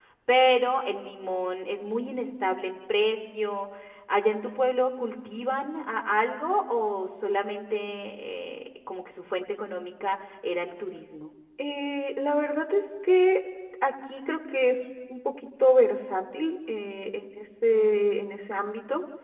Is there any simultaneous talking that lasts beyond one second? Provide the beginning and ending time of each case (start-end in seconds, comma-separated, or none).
none